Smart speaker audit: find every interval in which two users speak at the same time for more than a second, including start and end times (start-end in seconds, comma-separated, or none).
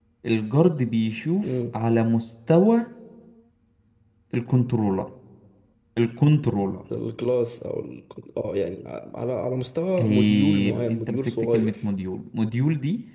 10.0-11.8